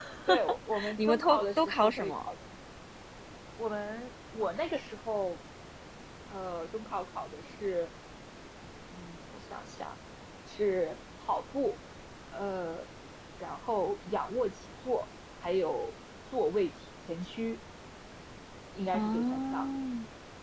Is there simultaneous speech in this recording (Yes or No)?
Yes